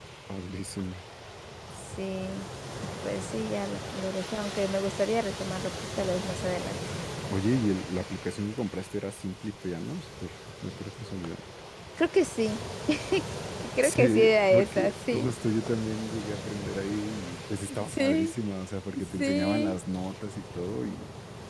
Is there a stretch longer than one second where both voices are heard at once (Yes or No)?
Yes